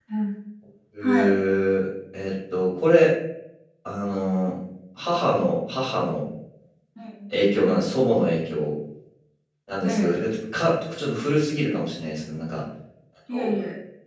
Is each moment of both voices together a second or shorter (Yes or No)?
Yes